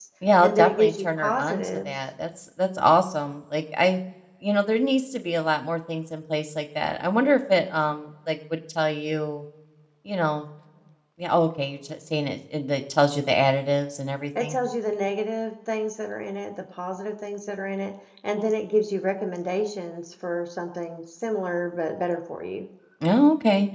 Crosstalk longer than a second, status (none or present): present